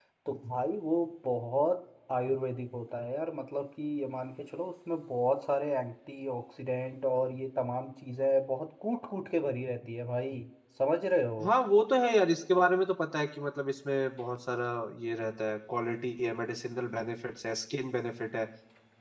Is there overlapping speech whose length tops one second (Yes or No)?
No